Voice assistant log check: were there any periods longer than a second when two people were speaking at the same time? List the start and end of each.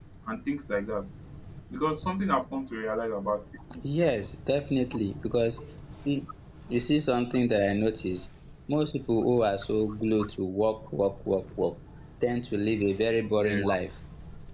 none

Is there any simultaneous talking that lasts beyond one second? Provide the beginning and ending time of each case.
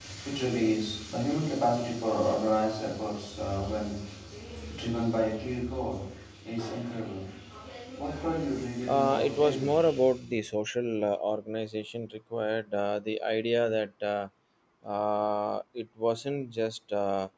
8.9-10.3

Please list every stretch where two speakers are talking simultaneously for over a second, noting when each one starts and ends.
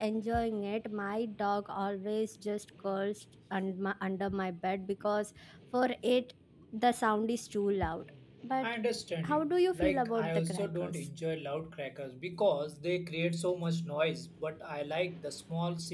9.2-11.1

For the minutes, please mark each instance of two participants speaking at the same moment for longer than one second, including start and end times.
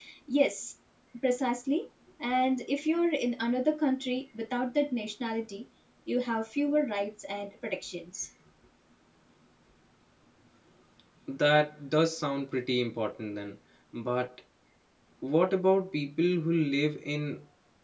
none

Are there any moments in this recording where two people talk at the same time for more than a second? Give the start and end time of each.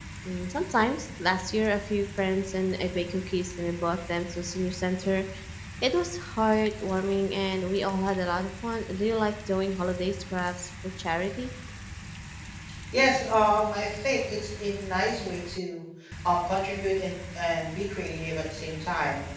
none

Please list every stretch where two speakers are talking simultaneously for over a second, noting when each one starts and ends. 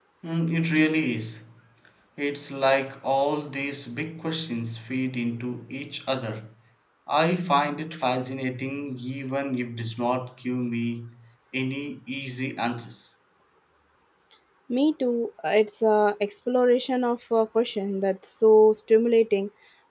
none

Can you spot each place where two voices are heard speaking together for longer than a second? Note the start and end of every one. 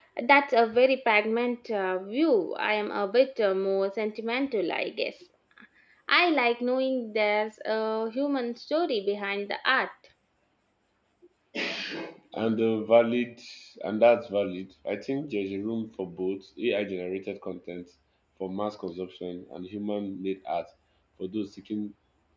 none

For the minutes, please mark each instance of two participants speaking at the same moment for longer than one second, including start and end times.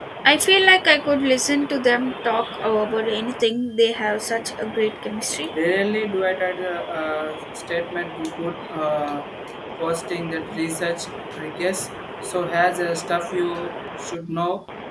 none

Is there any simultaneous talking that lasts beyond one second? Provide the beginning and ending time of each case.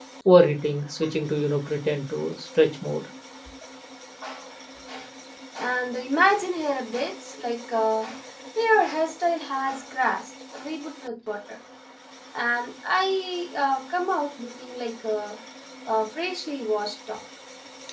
none

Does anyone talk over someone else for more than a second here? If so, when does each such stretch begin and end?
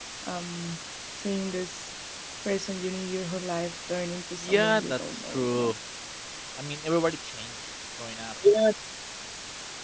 4.4-5.7

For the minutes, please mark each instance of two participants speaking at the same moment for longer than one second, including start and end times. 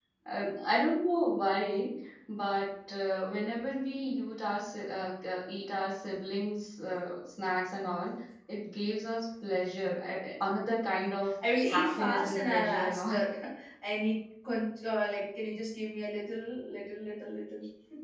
11.7-13.2

